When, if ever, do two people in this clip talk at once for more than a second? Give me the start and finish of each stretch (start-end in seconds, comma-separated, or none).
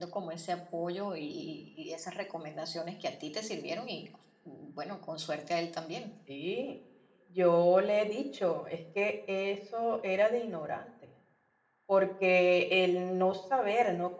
none